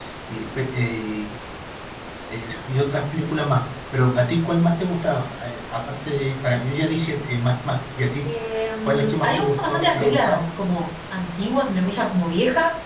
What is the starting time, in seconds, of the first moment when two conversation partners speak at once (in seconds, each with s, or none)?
8.8 s